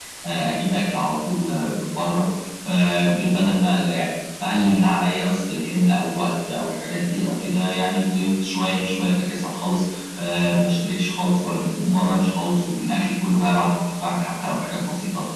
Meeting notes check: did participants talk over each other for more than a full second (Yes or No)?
No